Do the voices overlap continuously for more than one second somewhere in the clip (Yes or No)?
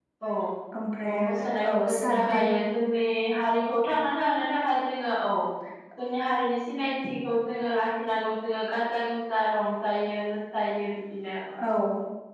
Yes